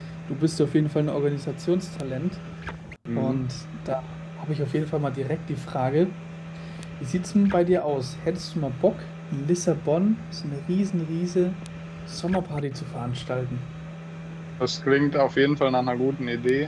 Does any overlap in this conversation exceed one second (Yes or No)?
No